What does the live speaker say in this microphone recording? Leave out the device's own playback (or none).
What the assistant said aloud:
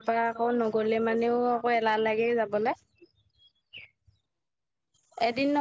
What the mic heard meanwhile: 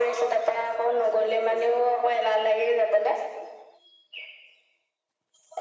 none